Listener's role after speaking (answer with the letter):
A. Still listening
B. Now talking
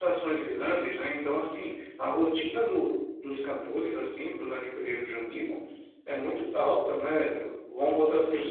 A